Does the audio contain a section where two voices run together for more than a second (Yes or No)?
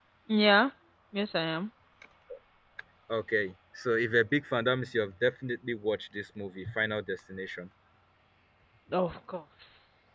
No